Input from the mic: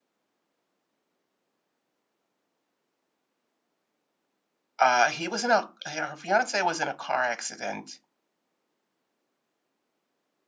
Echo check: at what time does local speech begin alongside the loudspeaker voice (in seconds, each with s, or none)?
4.8 s